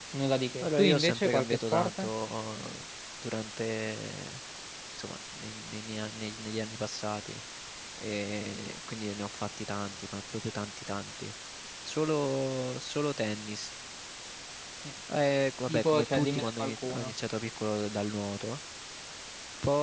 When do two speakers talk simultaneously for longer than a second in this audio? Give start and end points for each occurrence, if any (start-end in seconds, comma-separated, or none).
0.6-2.1, 15.7-17.1